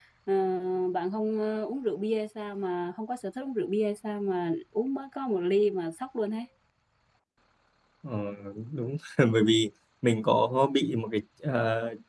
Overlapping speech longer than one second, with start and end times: none

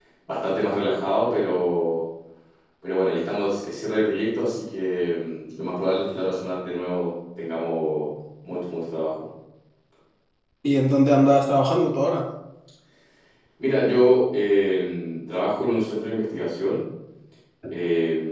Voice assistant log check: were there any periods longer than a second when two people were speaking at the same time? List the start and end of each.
none

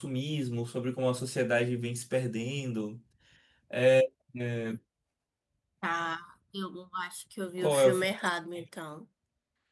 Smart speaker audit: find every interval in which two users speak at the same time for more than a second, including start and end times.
none

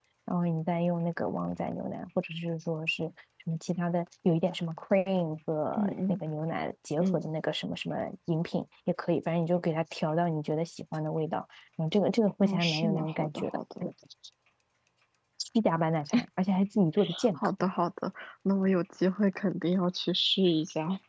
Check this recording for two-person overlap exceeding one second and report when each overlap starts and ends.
12.4-13.8

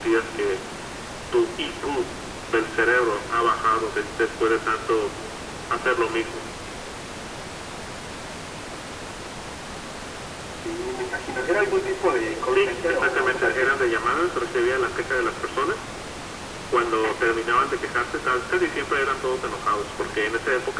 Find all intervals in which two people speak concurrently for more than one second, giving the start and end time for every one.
12.5-13.7

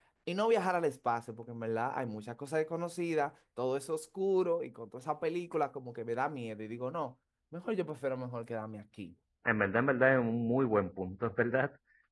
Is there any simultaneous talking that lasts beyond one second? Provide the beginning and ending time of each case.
none

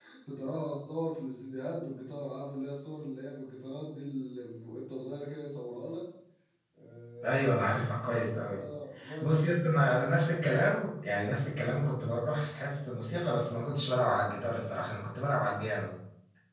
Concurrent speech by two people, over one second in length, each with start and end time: none

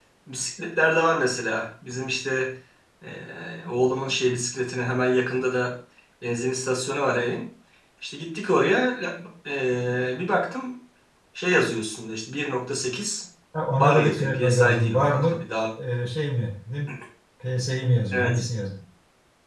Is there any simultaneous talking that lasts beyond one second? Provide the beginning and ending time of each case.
13.7-15.4

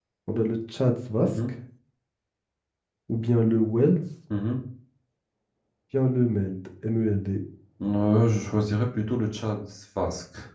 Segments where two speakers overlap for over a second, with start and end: none

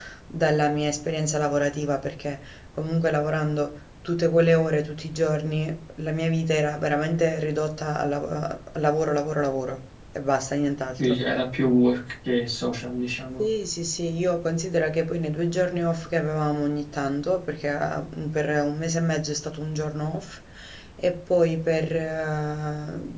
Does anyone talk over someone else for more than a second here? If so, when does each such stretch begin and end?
none

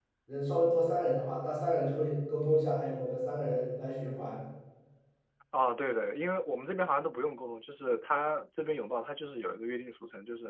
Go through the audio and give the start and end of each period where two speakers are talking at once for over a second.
none

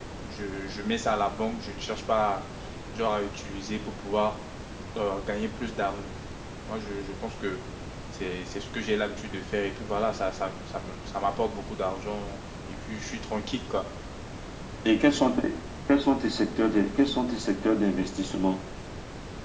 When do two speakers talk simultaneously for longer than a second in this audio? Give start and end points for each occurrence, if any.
none

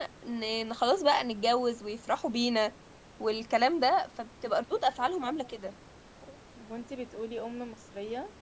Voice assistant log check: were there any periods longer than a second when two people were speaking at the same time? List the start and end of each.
none

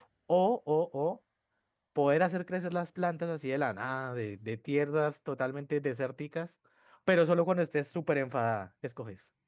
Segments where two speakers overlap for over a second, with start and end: none

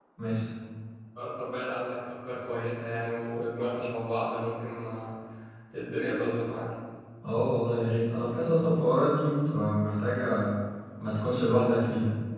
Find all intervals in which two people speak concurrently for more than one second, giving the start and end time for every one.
none

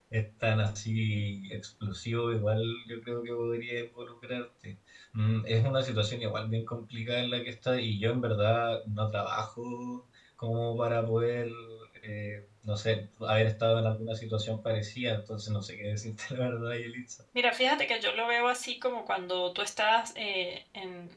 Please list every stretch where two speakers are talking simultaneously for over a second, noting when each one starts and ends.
none

